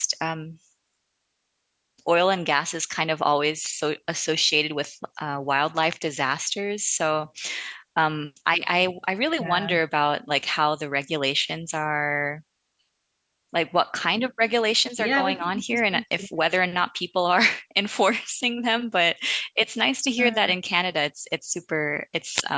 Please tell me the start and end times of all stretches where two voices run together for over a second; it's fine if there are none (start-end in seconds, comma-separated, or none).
15.0-16.3